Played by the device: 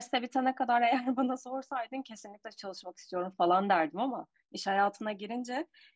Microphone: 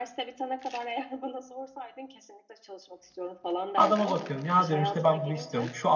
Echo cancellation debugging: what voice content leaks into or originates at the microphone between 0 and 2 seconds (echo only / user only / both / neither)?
echo only